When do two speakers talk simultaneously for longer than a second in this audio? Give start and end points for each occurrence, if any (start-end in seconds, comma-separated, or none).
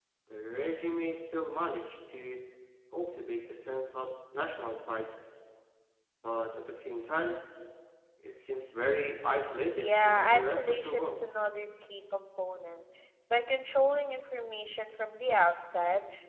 9.7-11.2